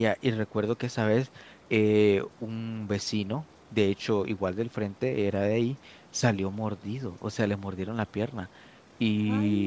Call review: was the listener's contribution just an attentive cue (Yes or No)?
Yes